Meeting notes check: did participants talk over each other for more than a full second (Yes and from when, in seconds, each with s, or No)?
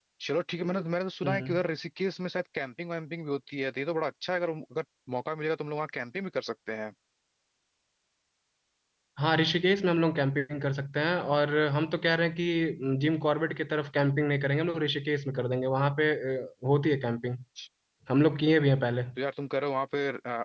No